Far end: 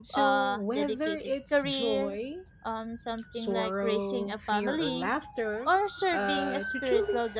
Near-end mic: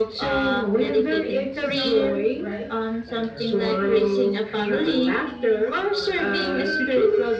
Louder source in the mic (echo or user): echo